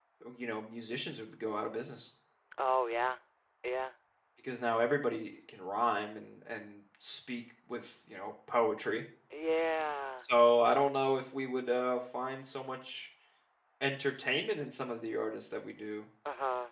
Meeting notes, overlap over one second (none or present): none